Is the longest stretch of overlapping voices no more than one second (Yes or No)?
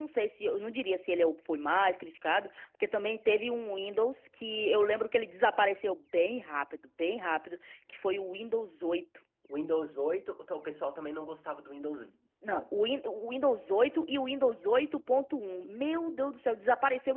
Yes